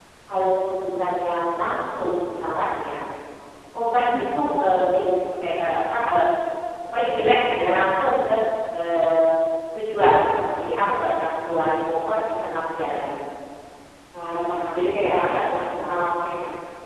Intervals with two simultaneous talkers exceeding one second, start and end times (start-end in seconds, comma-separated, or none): 14.2-16.0